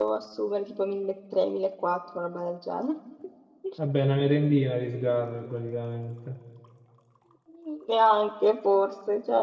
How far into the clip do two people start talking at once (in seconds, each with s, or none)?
none